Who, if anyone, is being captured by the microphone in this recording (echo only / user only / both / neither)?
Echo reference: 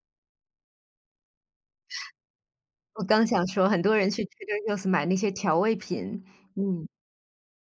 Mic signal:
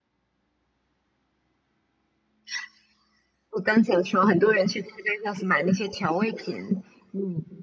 echo only